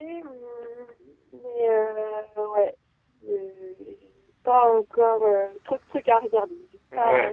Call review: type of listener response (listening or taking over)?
taking over